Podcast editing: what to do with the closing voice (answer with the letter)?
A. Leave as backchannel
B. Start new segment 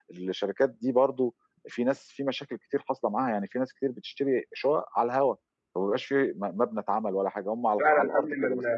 B